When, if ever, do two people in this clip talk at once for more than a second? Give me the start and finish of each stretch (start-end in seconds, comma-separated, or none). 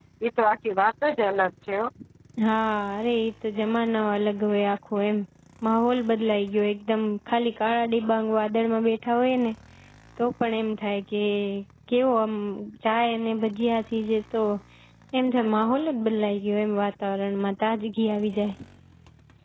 none